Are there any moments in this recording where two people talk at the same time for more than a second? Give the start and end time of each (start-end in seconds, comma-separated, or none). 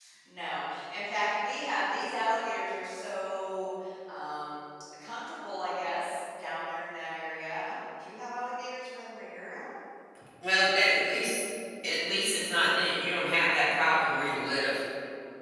none